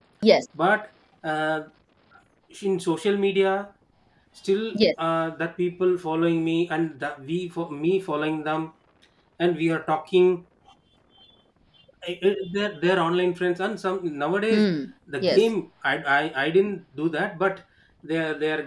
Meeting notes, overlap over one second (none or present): none